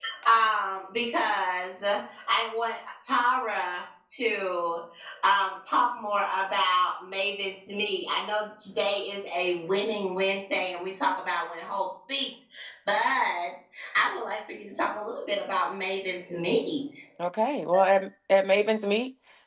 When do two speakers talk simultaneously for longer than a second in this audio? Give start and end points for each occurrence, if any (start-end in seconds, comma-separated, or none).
none